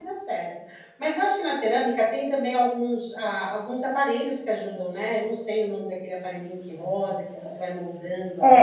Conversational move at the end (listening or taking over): taking over